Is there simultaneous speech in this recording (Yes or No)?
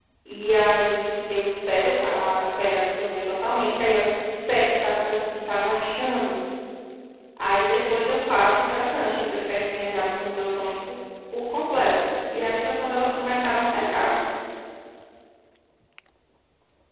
No